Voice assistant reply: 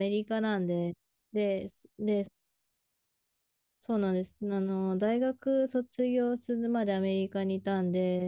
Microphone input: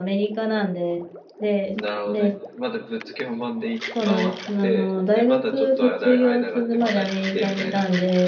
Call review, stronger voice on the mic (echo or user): echo